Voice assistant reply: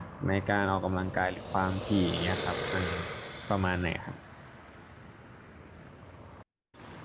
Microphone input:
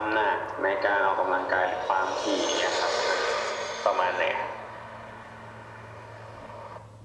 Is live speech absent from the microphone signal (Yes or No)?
Yes